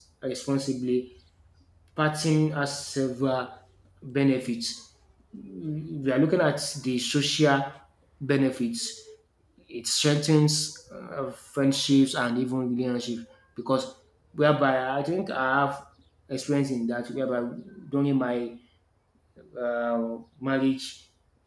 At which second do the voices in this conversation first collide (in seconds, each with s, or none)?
none